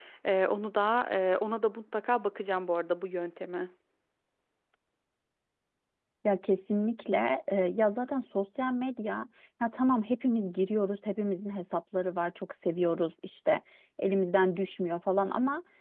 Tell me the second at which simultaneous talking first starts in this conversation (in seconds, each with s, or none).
none